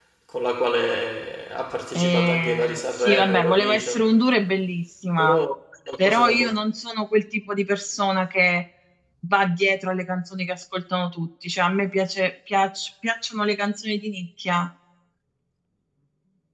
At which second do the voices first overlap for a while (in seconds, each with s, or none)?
1.9 s